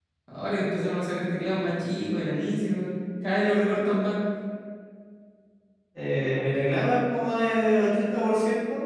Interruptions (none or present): none